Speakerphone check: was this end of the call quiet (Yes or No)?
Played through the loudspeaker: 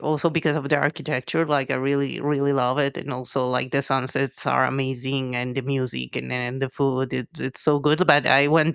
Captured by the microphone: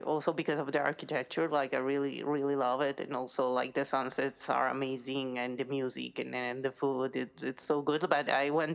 Yes